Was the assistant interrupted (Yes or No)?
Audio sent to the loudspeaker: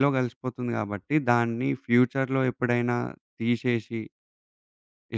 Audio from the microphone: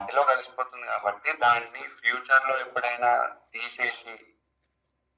No